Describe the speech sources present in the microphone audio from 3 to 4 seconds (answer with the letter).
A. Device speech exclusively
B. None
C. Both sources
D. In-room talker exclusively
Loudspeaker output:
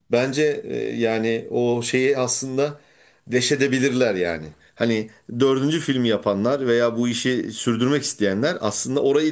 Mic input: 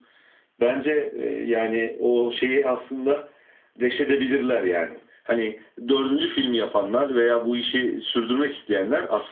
A